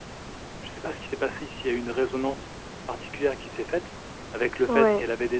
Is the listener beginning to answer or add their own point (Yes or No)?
No